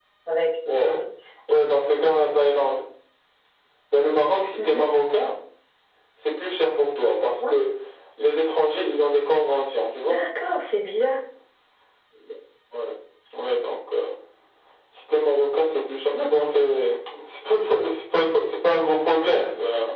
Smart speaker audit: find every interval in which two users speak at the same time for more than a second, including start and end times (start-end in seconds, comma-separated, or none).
none